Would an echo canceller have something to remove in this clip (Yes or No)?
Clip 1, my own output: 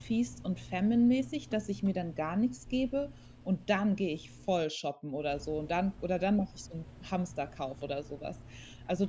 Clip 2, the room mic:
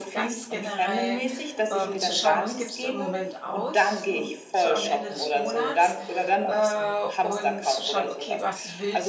Yes